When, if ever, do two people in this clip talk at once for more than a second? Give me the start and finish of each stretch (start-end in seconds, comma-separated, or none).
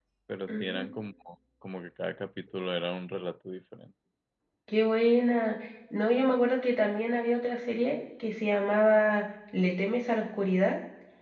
none